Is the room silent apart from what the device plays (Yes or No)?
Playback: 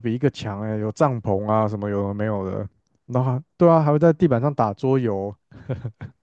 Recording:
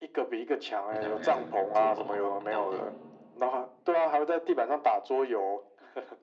No